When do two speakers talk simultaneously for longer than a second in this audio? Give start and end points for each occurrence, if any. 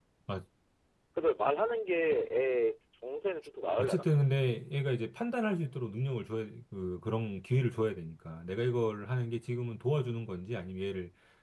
none

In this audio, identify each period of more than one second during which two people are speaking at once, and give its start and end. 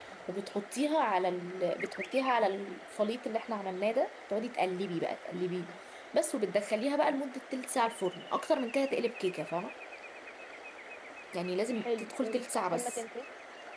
11.7-13.0

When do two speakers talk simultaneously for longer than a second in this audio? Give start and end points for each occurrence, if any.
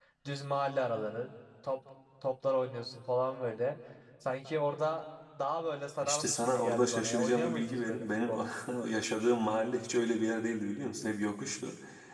6.0-8.4

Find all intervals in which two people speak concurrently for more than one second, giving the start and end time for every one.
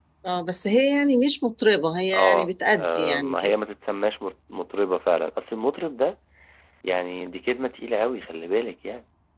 2.1-3.5

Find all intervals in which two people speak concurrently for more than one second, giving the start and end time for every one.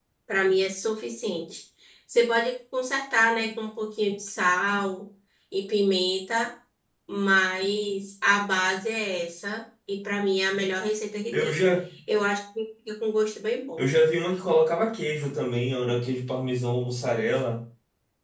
none

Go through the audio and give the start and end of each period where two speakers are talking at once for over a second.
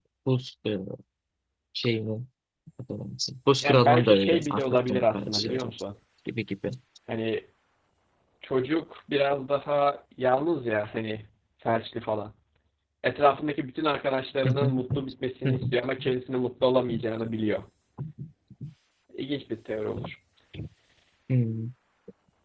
3.6-5.7

